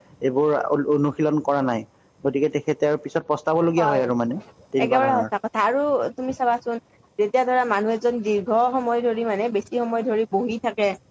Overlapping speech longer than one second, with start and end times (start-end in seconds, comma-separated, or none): none